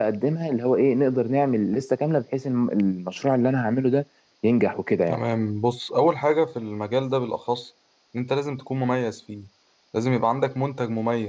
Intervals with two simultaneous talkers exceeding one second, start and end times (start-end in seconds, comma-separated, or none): none